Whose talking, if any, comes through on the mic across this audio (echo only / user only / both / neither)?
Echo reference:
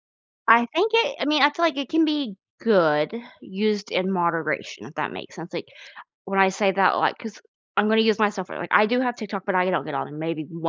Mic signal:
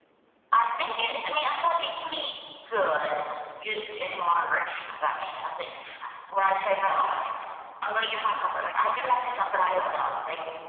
echo only